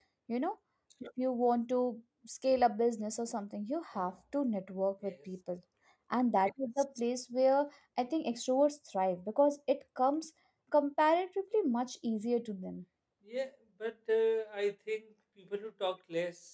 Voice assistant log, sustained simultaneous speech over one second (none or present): none